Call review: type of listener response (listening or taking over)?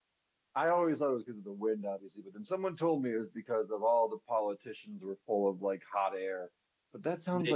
listening